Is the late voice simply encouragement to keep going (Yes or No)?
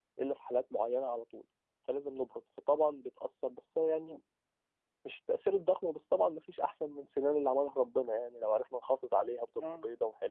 Yes